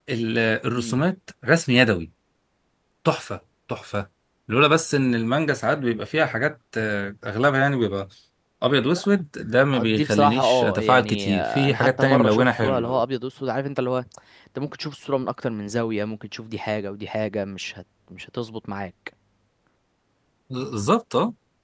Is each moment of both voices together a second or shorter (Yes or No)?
No